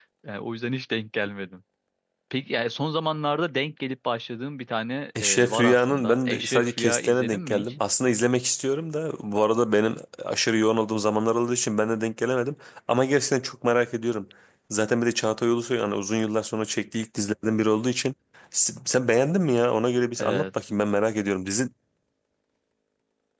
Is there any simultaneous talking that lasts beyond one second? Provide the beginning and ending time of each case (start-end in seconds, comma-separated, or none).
5.2-7.7